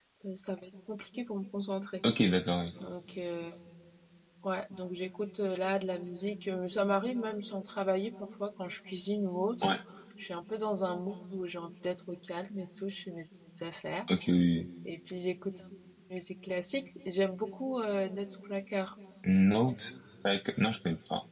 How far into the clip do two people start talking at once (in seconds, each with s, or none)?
none